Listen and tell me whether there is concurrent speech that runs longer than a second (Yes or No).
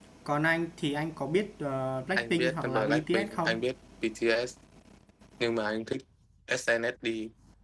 Yes